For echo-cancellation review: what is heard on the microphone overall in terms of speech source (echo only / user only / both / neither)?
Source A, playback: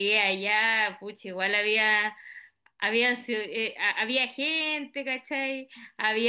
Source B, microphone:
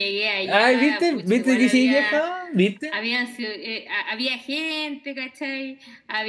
both